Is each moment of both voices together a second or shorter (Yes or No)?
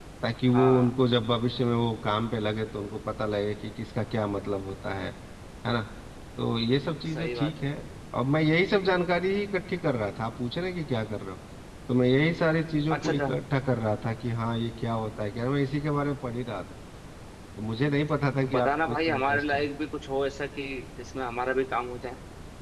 No